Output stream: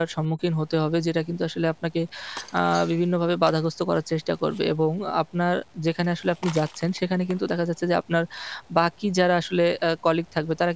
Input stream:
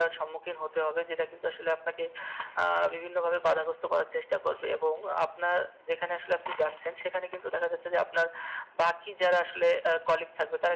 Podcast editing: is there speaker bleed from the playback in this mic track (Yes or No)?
Yes